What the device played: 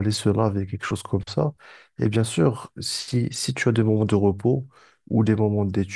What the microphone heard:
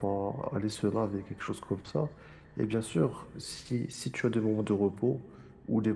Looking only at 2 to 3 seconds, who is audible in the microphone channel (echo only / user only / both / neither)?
echo only